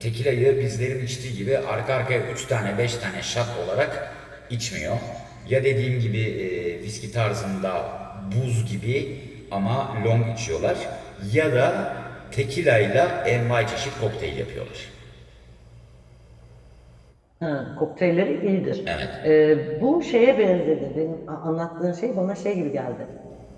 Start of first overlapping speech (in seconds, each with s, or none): none